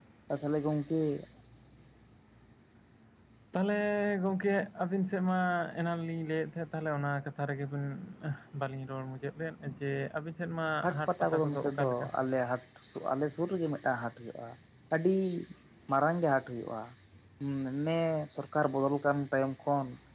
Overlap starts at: 10.8 s

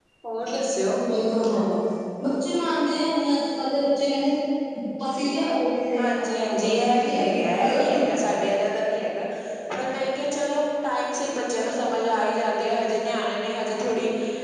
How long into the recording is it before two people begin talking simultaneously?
6.0 s

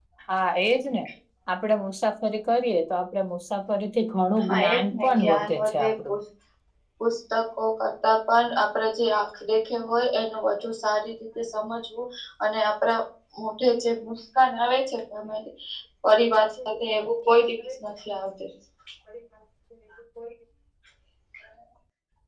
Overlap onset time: 4.5 s

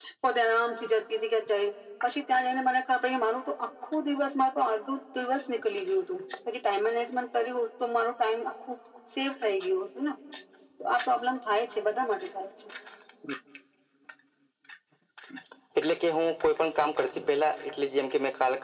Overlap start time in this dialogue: none

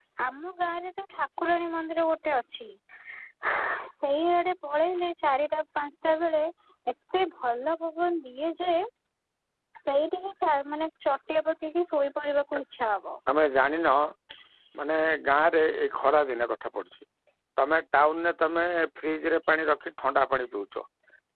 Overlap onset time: none

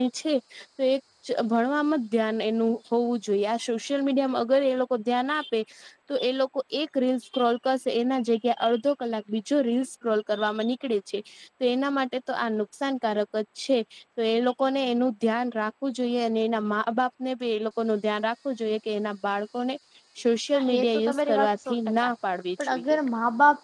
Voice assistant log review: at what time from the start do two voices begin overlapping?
20.5 s

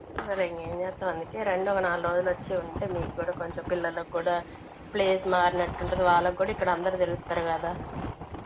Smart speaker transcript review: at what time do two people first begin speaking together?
none

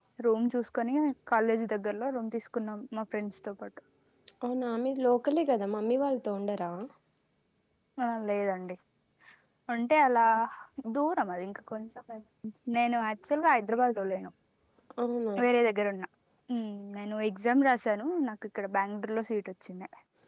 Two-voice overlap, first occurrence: none

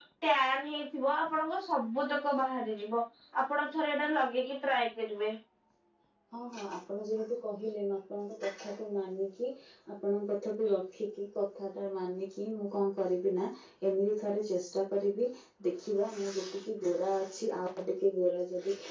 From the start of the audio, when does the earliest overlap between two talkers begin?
none

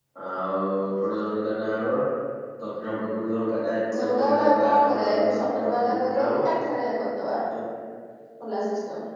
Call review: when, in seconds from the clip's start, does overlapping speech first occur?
3.9 s

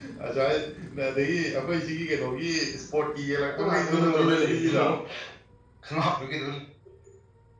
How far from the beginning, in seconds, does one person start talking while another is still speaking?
3.5 s

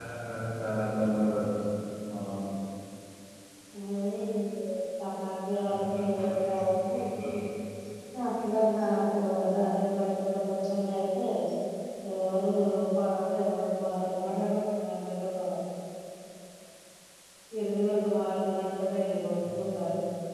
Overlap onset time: 5.7 s

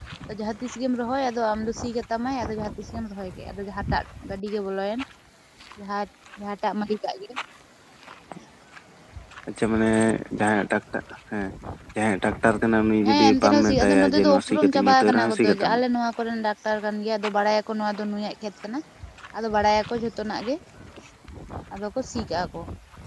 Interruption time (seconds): 13.0 s

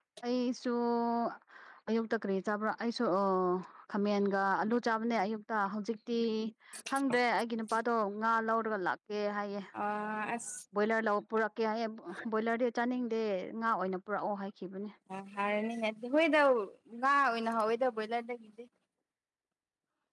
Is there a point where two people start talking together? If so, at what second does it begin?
none

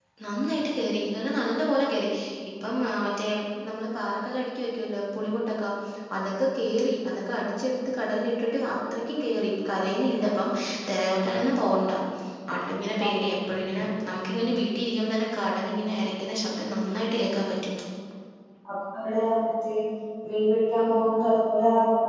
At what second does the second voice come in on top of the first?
none

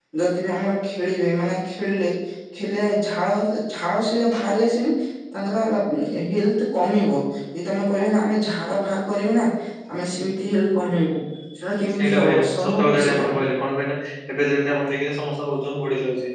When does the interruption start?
12.0 s

